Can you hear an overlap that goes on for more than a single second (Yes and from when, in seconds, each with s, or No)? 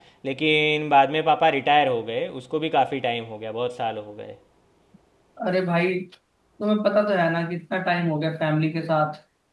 No